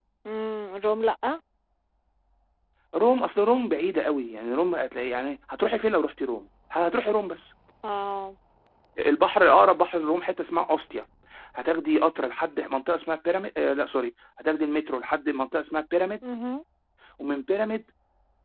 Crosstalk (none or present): none